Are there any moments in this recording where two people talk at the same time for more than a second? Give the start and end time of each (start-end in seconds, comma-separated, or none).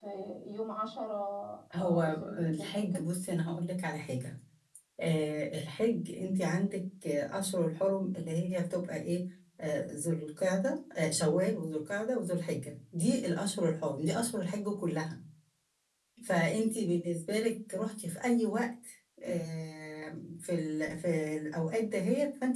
1.8-3.0